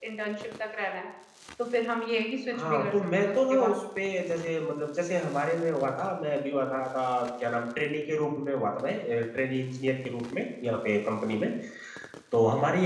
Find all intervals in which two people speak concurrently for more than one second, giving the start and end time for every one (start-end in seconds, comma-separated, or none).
2.5-3.8